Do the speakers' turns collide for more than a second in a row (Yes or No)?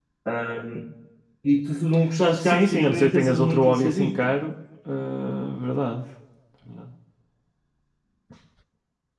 Yes